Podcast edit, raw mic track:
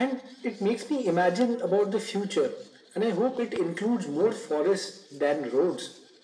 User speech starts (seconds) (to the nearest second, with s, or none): none